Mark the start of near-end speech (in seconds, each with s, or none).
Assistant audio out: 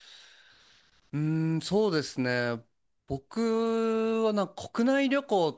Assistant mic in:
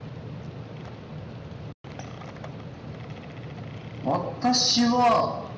4.0 s